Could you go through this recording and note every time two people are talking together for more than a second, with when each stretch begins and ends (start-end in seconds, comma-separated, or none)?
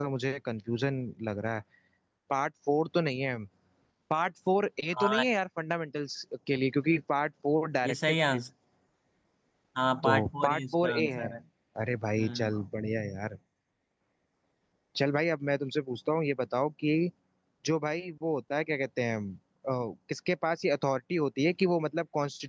10.0-11.3